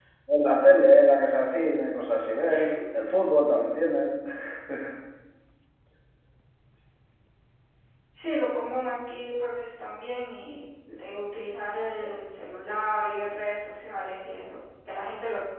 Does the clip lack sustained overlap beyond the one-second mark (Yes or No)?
Yes